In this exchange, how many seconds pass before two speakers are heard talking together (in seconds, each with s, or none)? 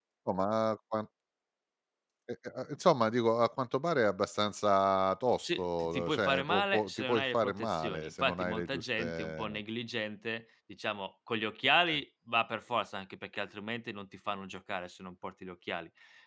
5.4 s